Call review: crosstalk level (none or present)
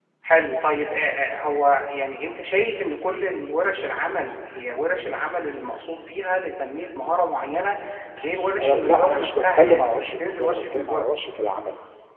present